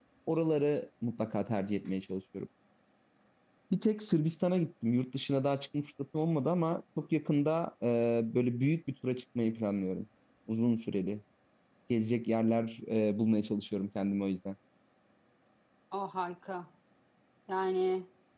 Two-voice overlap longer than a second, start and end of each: none

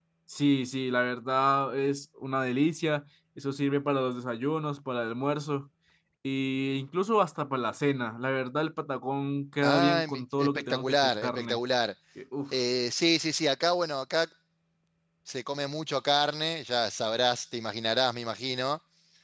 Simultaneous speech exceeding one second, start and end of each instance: 9.6-11.6

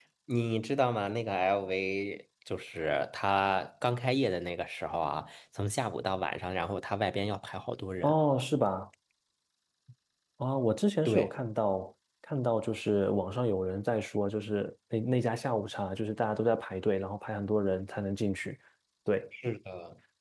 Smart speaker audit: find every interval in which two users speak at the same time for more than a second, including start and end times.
none

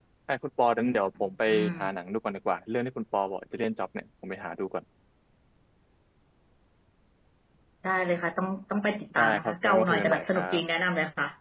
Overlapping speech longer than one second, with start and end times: 9.2-10.6

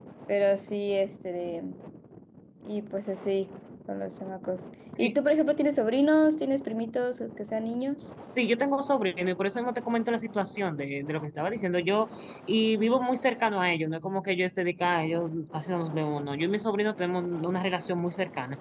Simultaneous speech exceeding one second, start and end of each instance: none

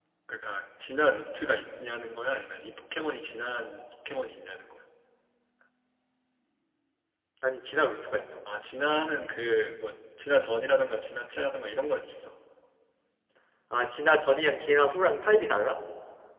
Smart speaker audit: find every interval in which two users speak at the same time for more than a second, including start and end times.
none

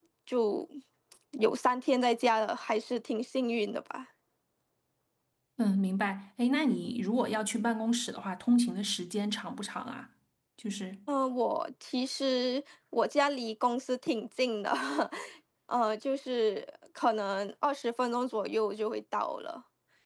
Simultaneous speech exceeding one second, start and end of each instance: none

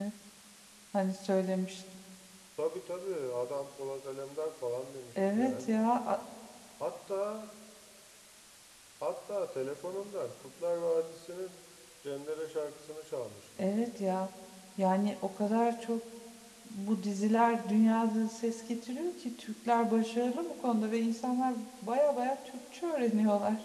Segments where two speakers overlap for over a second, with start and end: none

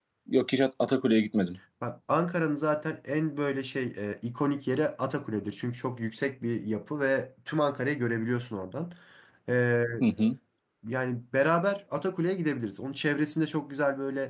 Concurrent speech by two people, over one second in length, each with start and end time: none

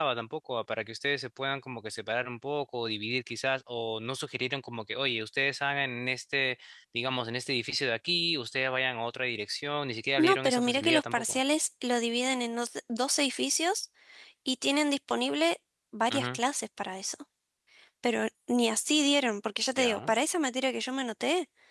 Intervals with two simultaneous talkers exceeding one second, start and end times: 10.2-11.4

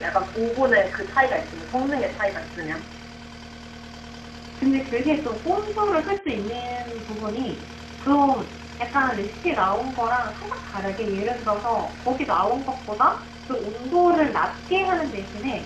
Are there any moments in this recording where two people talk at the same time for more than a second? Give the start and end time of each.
none

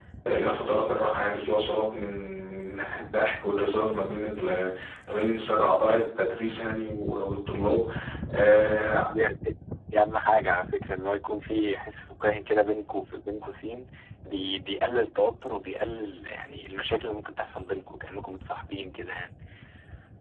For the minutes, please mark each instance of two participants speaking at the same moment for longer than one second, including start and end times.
none

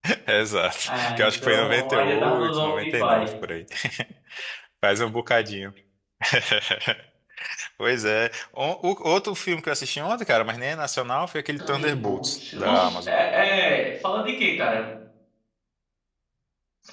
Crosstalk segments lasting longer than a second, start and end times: 0.9-3.3, 11.7-13.1

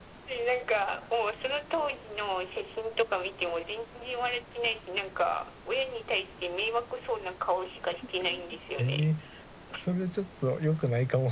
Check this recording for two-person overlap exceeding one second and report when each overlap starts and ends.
none

